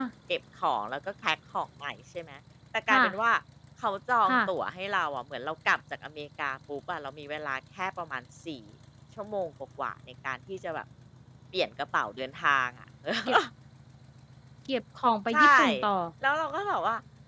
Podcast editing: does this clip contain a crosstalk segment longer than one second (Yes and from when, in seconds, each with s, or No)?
No